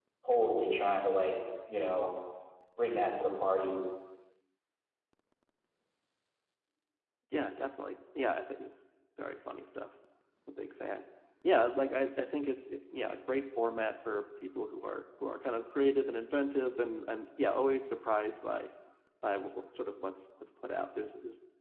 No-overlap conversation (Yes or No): Yes